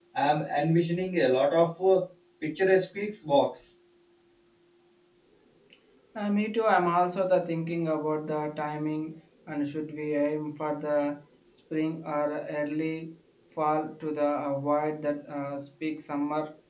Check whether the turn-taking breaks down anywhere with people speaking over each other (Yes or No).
No